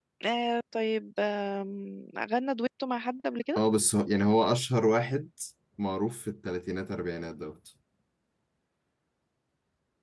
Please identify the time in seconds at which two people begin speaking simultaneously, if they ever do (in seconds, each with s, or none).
none